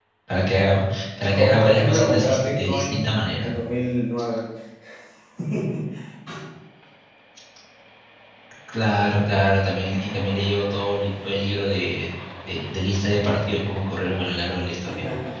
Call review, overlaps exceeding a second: present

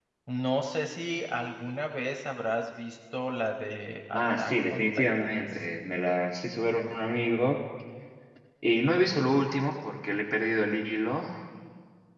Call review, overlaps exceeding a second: present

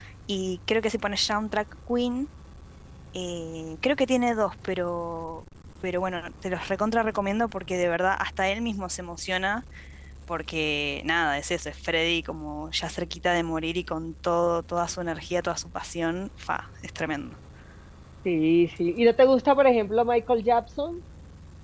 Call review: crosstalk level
none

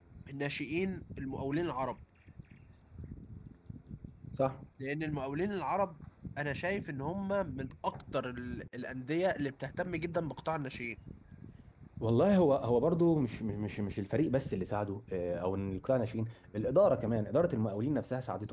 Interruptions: none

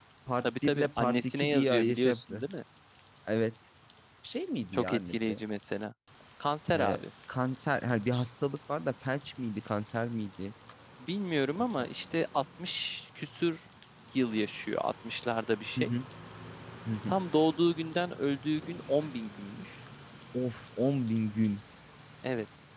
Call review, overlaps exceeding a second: present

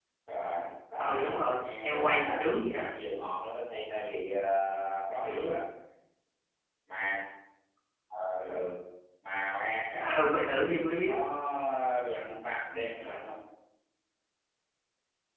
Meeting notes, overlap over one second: present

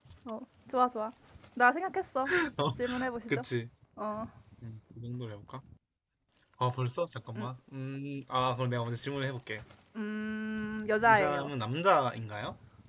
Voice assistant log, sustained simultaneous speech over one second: none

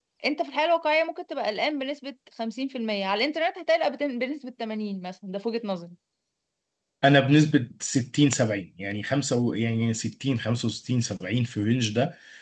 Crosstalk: none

